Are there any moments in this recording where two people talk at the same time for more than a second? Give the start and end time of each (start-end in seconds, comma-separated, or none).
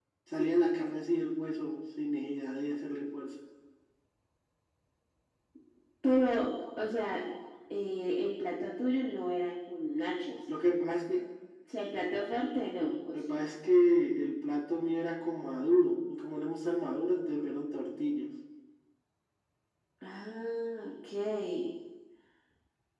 none